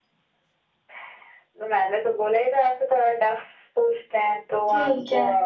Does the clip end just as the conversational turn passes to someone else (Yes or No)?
Yes